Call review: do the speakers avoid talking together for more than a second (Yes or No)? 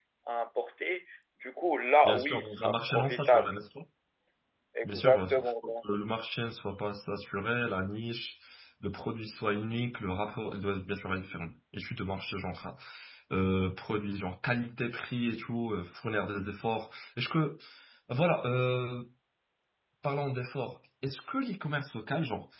No